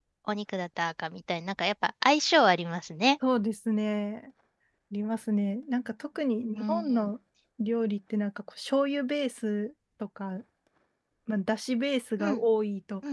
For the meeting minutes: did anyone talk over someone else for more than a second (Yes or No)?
No